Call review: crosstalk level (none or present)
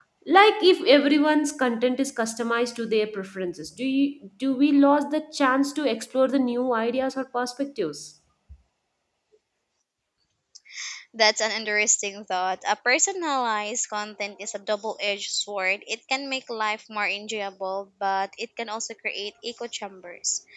none